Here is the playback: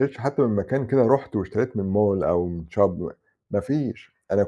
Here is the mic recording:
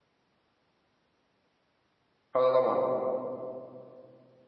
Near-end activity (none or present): present